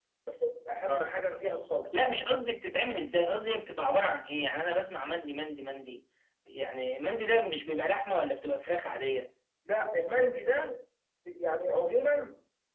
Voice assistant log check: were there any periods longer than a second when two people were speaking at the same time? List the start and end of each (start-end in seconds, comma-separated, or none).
none